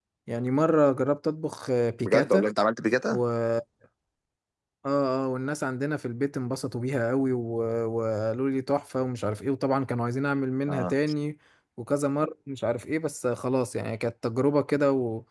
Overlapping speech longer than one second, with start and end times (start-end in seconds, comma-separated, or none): none